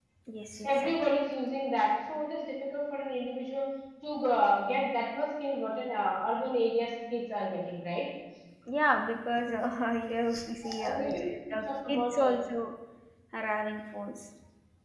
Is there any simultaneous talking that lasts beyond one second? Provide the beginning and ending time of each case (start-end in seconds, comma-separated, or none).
10.9-12.3